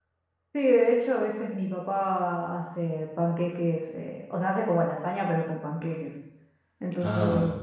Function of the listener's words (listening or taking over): listening